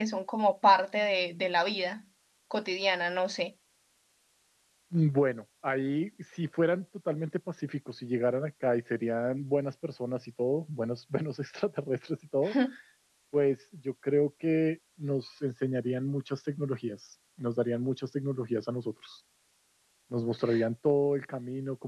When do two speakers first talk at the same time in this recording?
none

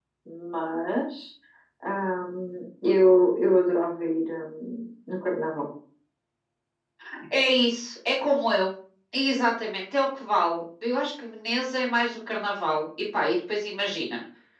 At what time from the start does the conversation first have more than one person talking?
none

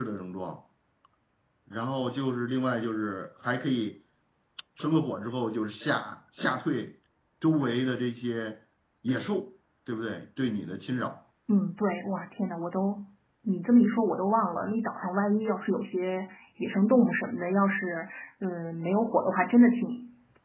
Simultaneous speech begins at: none

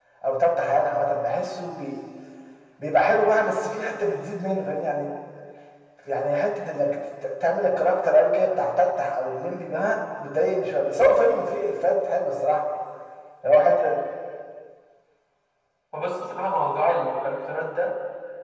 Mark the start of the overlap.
none

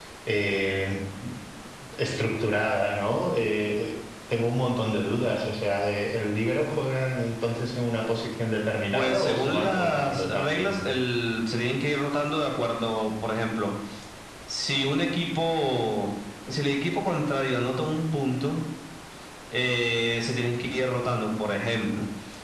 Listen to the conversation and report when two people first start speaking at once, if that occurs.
8.9 s

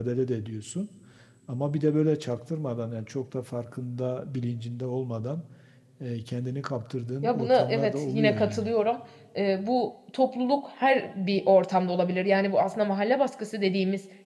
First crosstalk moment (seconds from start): 7.2 s

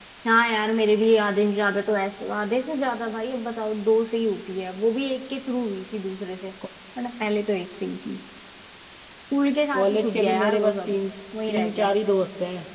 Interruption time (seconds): 9.7 s

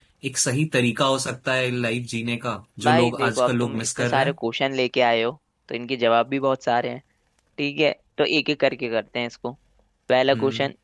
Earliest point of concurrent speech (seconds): 2.8 s

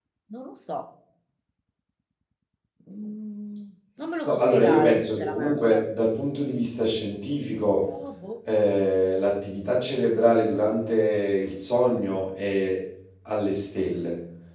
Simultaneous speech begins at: 4.2 s

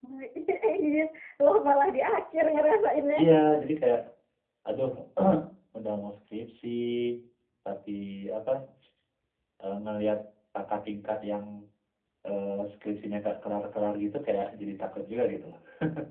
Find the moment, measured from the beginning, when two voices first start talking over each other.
none

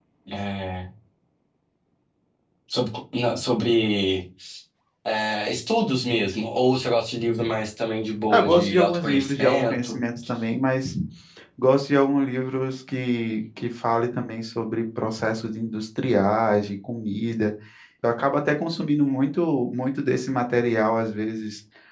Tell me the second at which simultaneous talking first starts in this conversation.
8.3 s

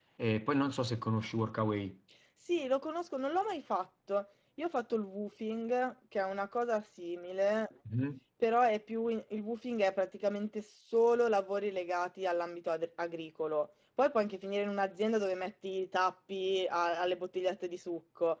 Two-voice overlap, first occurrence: none

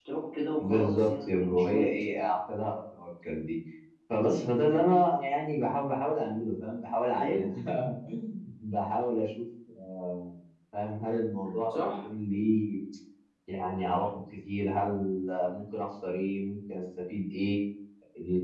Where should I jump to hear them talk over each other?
0.6 s

